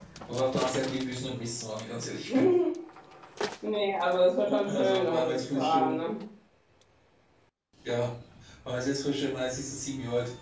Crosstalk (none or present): present